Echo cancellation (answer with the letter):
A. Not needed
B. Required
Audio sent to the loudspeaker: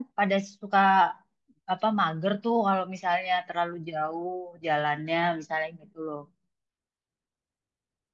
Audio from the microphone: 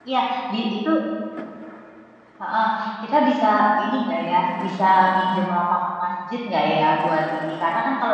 A